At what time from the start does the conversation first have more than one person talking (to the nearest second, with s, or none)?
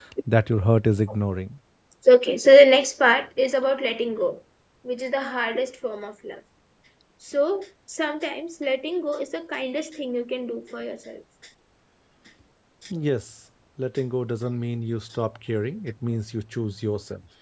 none